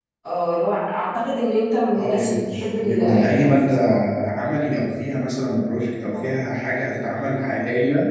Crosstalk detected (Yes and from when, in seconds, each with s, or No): Yes, from 1.9 s